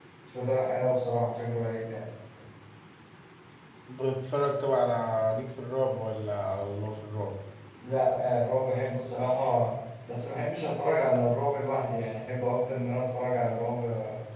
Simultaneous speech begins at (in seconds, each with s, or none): none